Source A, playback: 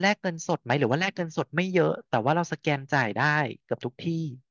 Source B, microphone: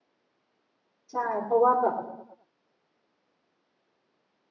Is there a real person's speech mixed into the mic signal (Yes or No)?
Yes